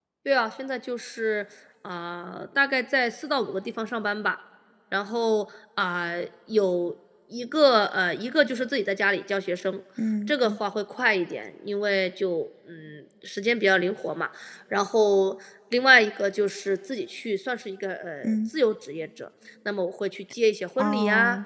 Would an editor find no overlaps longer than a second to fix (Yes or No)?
Yes